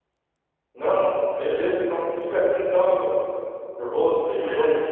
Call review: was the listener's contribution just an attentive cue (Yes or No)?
Yes